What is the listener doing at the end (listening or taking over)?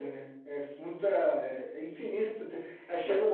listening